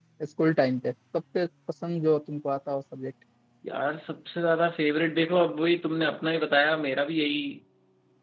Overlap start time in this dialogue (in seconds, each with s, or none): none